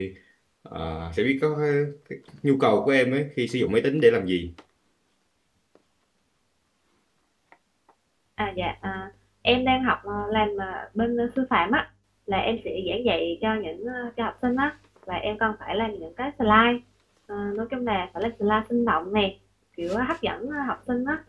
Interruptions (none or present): none